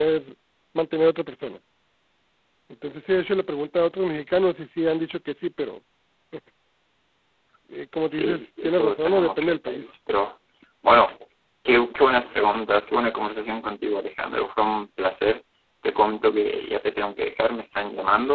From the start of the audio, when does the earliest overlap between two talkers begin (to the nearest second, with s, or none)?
8 s